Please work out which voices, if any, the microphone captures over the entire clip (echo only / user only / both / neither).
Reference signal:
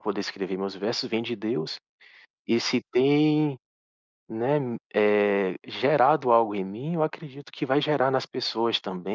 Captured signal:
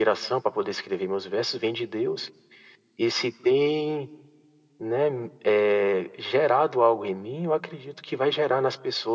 echo only